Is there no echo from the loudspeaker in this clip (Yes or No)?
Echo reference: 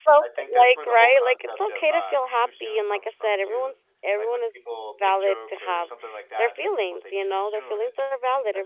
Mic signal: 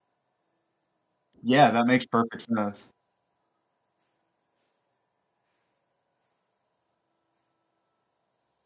Yes